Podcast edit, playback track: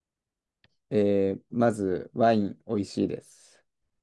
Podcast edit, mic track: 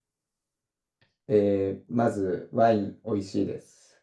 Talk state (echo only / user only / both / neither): echo only